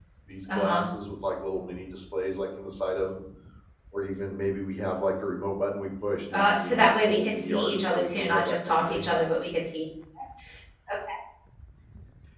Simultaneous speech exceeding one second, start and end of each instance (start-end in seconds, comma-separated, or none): 6.3-9.1